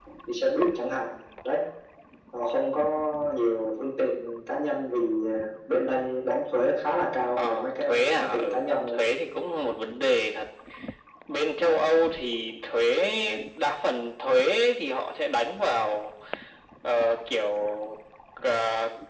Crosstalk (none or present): present